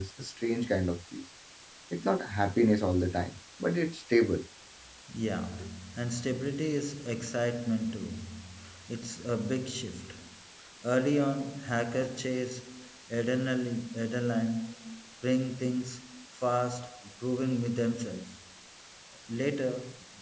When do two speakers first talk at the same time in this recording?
none

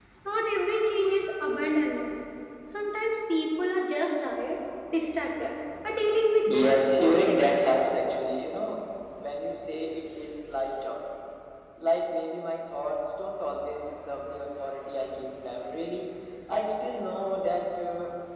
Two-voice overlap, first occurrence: 6.5 s

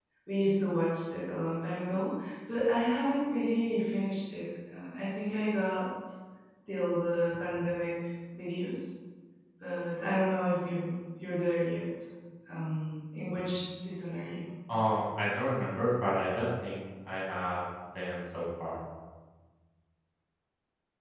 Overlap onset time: none

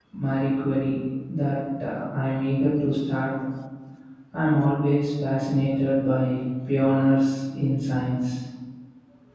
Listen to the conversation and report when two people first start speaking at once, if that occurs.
none

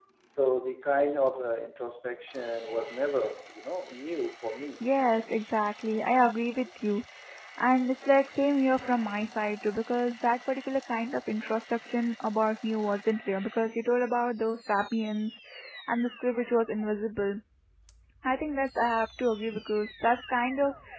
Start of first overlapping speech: none

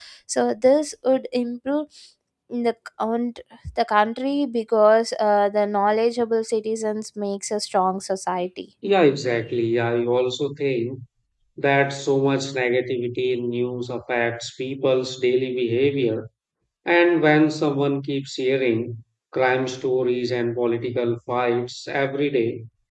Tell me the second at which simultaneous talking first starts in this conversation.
none

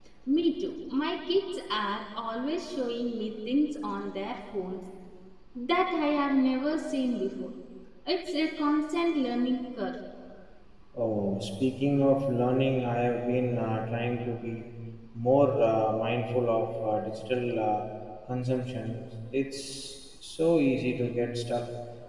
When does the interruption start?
none

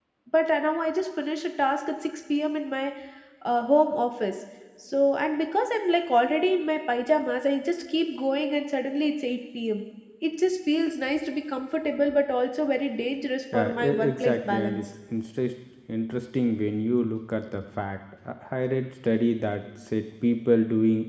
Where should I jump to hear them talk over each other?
13.5 s

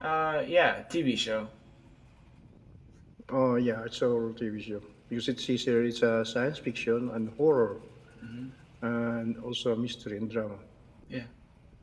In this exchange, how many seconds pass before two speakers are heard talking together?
none

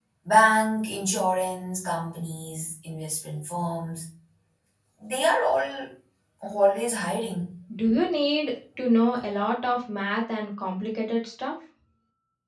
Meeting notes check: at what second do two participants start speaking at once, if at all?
none

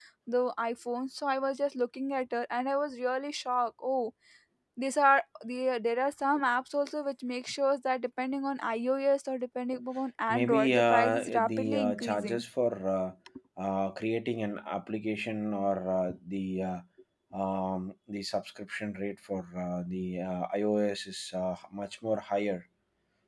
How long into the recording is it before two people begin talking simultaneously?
10.3 s

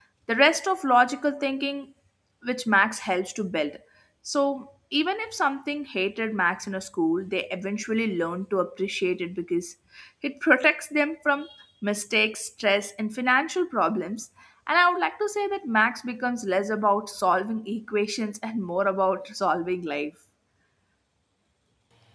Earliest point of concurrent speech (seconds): none

